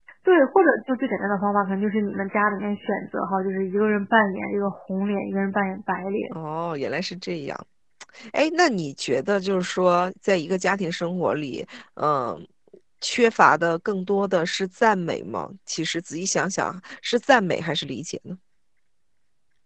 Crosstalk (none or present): none